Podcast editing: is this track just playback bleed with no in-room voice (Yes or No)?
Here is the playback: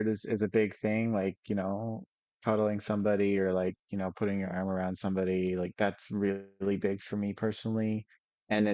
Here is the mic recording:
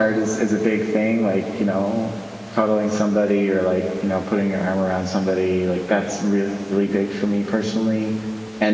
Yes